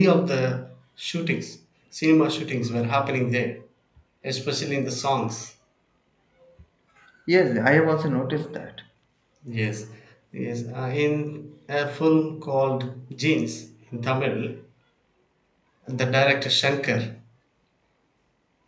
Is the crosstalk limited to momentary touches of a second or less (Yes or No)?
Yes